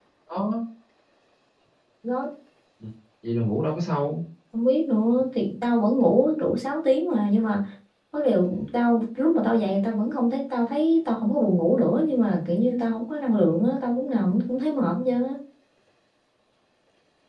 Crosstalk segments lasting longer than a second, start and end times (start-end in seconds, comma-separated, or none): none